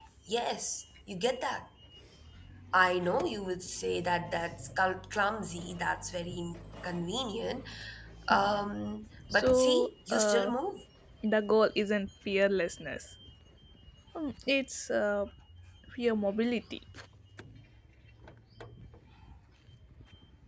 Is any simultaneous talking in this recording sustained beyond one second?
Yes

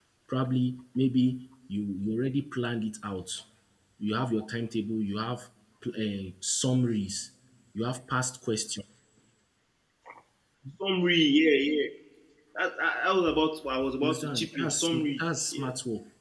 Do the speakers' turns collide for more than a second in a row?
Yes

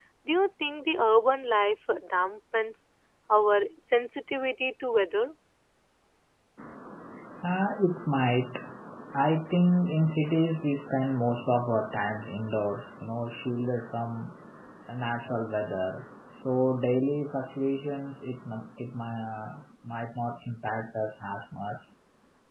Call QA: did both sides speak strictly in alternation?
Yes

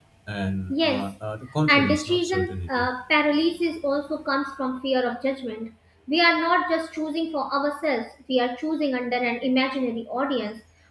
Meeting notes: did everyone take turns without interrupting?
No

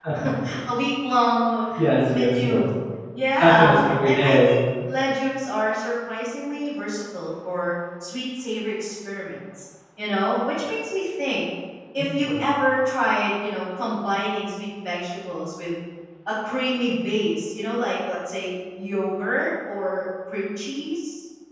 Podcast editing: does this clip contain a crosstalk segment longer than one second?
Yes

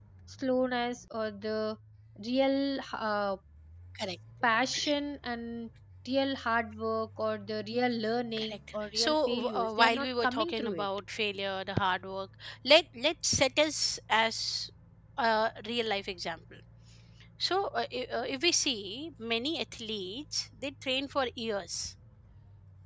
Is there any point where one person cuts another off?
Yes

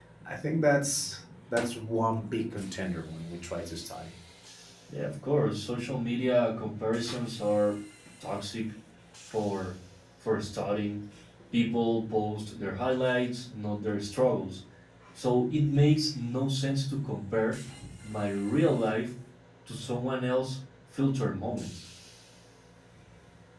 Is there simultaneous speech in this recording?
No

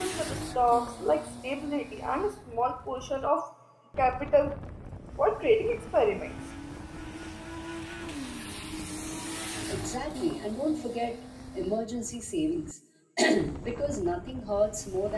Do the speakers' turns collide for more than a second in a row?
No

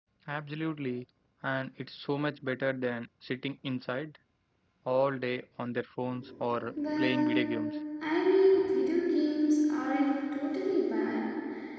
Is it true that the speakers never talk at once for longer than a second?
Yes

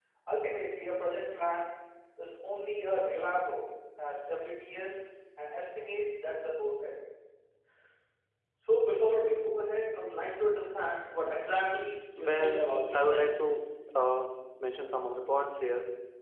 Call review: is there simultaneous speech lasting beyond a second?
Yes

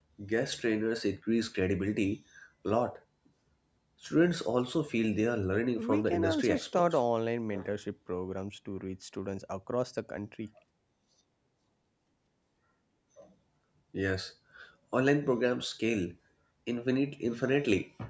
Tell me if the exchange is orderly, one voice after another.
No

